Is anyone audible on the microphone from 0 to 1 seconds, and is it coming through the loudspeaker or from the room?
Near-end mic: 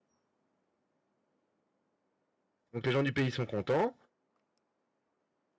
neither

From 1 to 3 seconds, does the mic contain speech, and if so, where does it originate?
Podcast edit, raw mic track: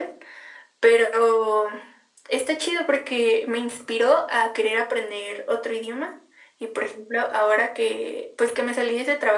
echo only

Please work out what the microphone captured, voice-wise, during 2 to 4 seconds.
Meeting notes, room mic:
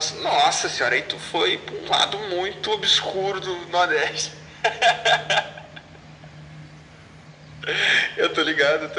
echo only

